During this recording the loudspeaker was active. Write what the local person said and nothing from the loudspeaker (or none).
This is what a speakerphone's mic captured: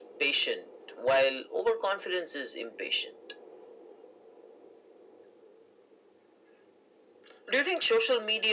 none